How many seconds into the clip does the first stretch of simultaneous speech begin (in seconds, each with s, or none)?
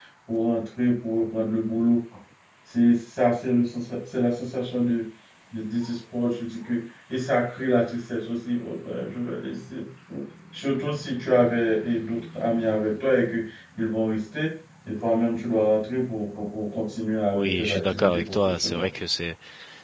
17.3 s